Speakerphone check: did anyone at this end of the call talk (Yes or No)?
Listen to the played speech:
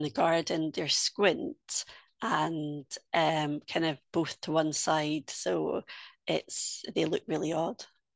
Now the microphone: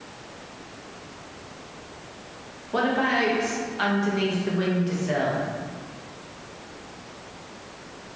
Yes